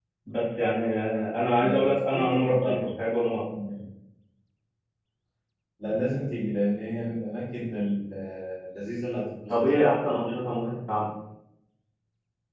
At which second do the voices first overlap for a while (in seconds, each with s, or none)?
1.6 s